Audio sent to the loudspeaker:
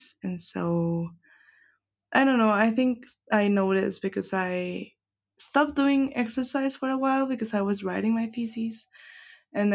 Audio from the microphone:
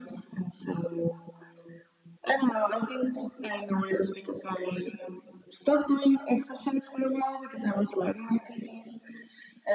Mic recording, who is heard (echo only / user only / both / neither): echo only